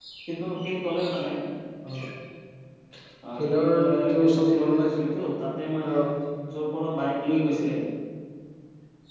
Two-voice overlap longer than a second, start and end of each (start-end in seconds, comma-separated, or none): 3.4-4.9